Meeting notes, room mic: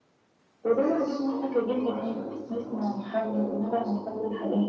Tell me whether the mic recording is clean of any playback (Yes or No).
No